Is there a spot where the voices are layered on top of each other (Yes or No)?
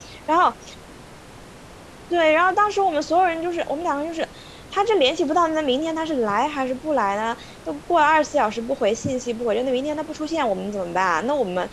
No